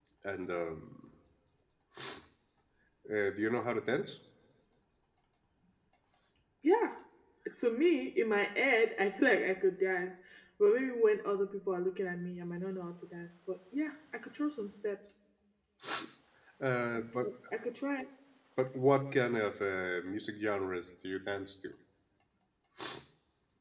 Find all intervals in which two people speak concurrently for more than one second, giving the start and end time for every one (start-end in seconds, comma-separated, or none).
none